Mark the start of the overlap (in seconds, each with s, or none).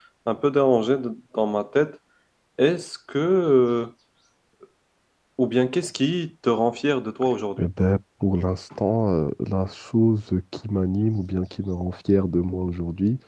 none